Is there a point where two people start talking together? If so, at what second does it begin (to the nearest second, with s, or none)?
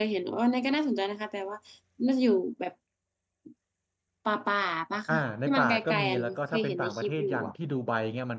5 s